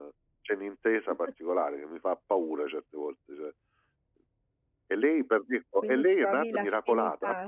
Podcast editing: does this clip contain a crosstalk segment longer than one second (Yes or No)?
Yes